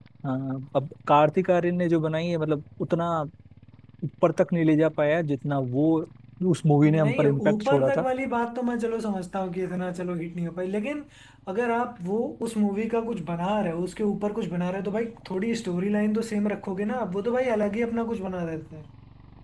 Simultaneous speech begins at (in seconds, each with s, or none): 6.8 s